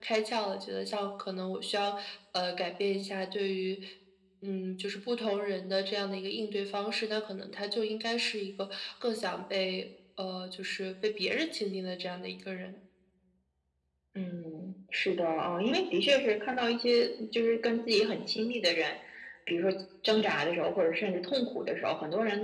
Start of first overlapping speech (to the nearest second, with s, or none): none